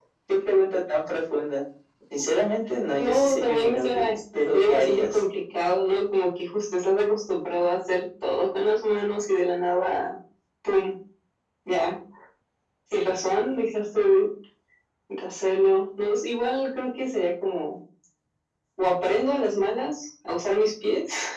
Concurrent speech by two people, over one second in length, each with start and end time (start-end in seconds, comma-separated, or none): 3.0-5.2